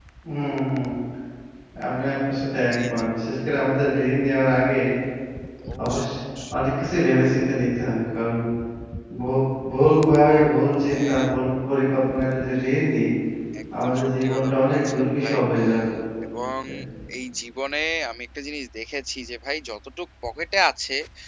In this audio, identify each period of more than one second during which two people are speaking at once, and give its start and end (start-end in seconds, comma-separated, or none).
14.0-15.4